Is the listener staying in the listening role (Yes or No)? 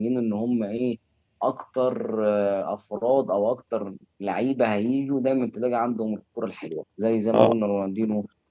Yes